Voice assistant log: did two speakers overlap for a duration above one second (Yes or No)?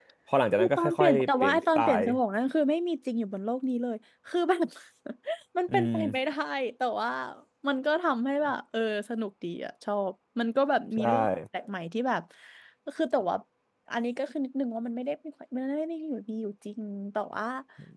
Yes